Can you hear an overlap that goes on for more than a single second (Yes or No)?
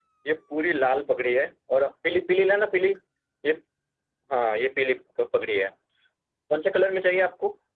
No